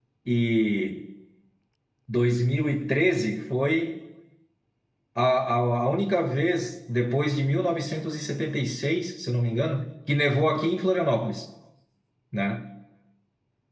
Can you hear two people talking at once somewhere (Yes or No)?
No